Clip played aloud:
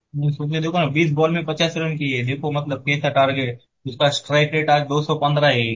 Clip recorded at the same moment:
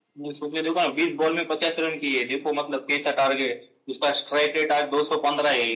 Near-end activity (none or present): none